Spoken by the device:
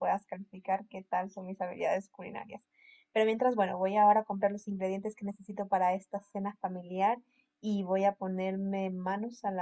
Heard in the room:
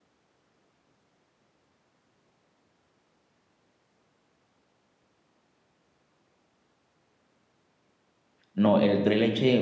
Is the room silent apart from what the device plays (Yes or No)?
No